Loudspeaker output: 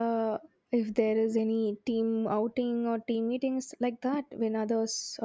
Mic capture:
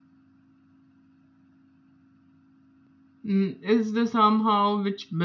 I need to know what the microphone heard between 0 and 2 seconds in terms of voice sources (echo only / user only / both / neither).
neither